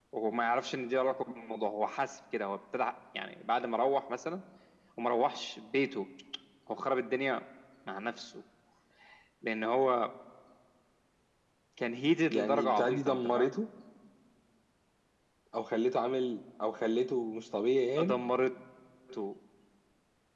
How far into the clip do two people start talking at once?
12 s

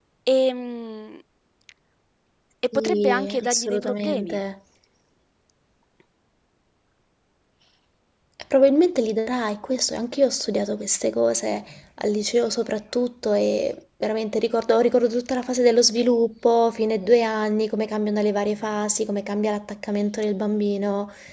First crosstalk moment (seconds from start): 3 s

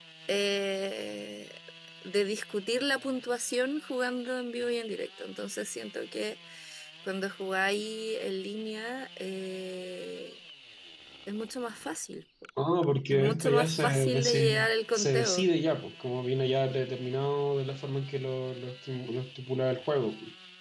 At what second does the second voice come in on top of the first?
13 s

